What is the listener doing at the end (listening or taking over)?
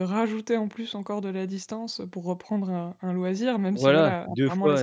taking over